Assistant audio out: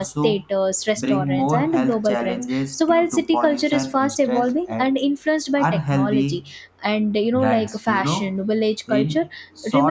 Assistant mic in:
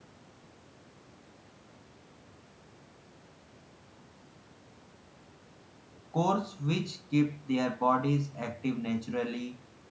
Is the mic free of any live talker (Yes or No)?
No